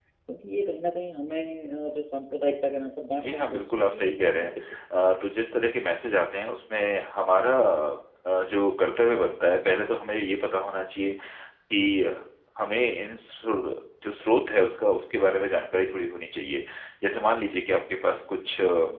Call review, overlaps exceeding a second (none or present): present